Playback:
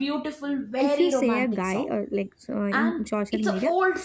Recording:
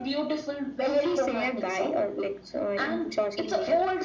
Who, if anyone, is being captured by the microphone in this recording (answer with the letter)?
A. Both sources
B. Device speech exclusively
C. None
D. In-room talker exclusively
B